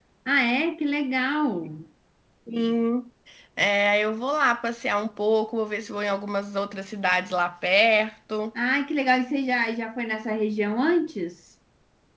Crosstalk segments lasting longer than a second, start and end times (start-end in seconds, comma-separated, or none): none